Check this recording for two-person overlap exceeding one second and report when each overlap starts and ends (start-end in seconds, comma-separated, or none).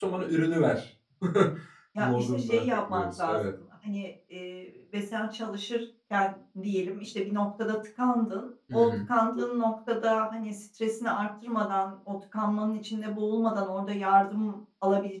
2.0-3.4